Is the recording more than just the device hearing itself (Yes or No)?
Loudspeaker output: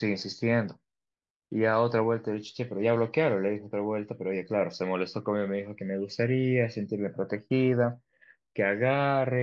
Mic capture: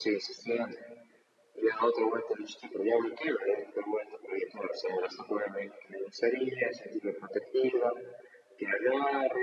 No